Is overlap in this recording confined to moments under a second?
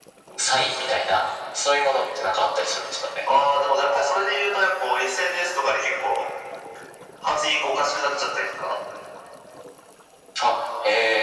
Yes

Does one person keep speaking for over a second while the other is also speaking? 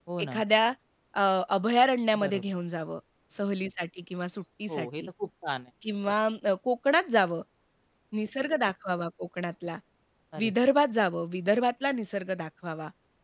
No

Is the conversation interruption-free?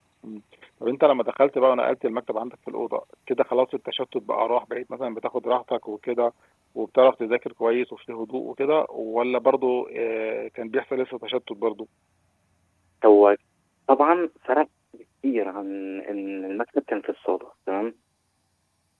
Yes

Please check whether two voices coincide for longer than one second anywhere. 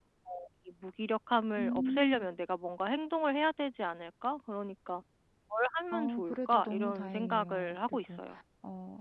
Yes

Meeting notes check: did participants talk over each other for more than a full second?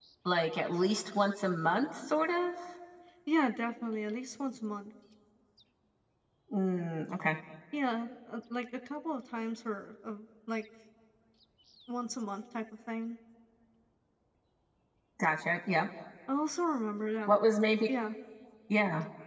No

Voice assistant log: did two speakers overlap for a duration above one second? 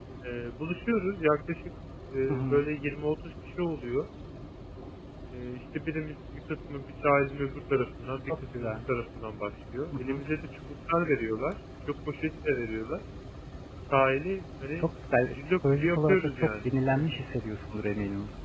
Yes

